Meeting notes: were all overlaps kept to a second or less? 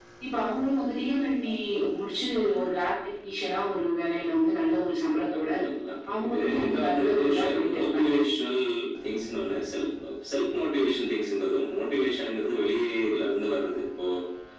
No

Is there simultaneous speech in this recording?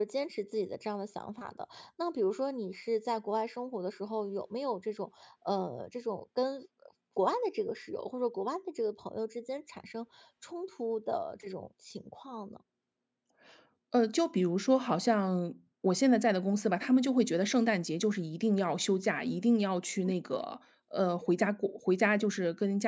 No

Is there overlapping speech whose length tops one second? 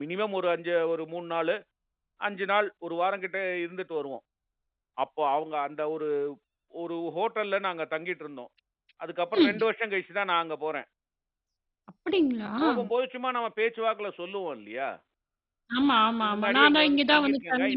Yes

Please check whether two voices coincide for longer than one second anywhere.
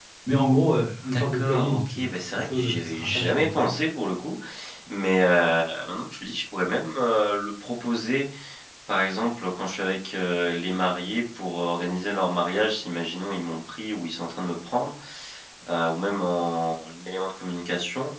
Yes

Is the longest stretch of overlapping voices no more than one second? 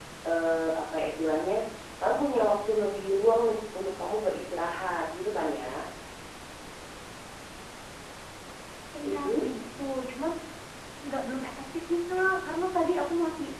Yes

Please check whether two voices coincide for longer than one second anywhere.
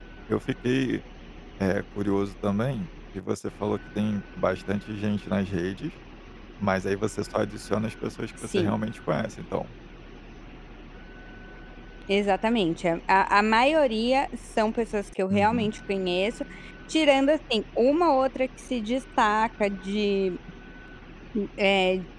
No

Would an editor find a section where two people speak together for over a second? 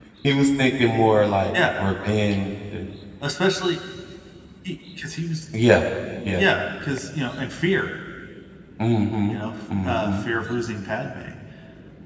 No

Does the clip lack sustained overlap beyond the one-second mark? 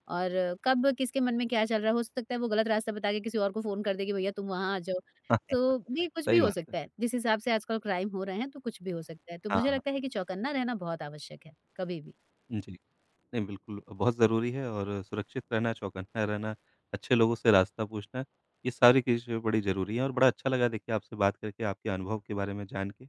Yes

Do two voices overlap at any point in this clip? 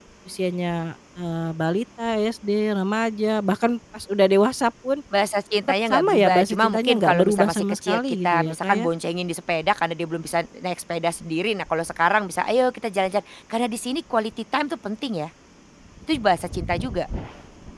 Yes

